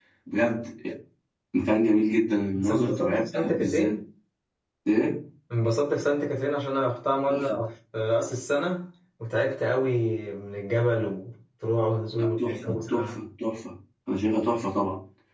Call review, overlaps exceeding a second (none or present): present